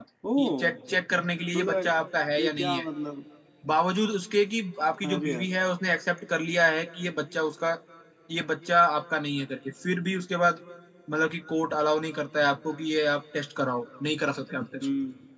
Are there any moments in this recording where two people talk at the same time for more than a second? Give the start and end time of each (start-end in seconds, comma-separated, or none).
none